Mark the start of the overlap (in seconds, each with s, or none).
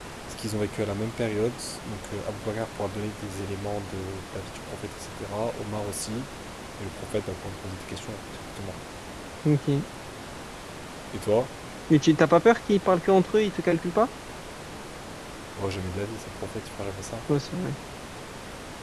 none